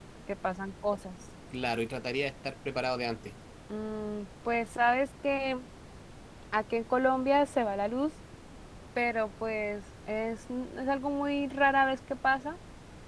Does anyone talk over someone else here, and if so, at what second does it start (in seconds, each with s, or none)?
none